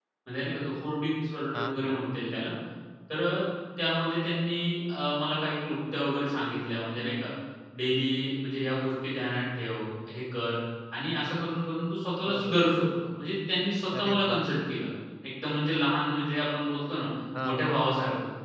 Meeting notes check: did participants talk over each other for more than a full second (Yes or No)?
No